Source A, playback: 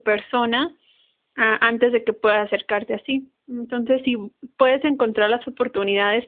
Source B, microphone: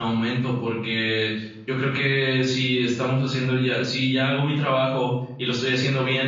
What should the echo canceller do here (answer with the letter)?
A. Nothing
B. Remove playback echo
A